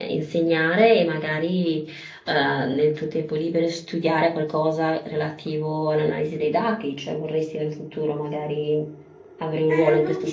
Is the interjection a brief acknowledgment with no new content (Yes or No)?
No